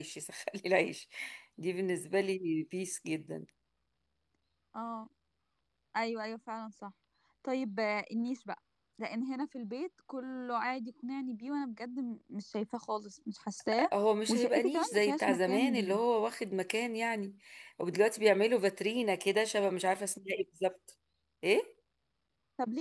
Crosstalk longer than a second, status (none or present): present